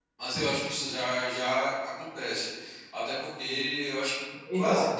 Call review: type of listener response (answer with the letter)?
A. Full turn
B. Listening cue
B